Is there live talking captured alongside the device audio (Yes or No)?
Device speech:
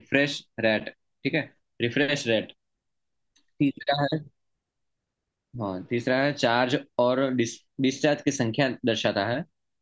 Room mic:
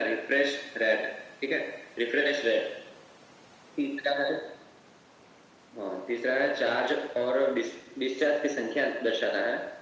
No